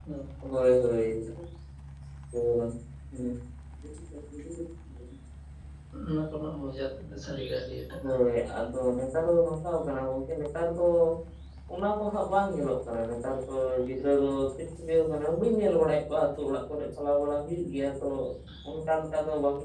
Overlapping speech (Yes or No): No